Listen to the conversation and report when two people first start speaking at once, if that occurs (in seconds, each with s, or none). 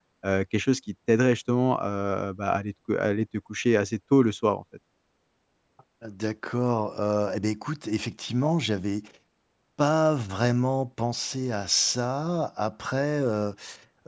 none